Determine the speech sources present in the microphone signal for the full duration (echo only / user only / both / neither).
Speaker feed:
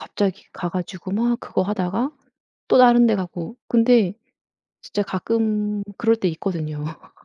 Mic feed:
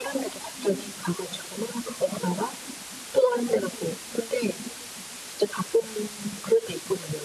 echo only